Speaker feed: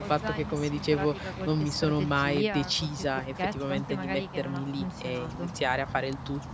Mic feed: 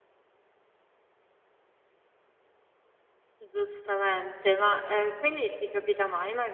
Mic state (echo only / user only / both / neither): user only